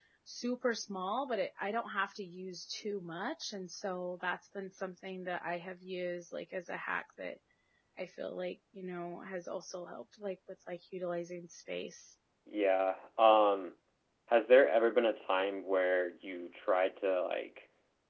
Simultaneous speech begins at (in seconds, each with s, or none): none